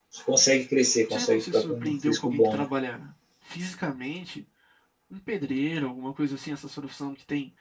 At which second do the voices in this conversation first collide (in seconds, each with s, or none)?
1.1 s